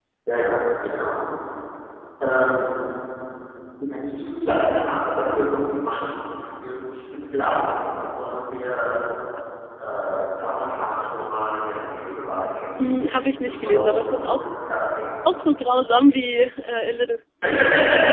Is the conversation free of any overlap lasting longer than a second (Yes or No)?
No